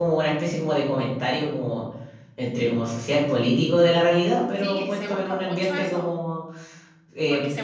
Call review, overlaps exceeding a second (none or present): present